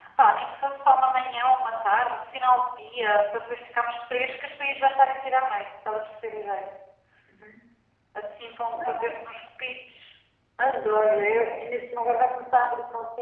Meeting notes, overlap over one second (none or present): none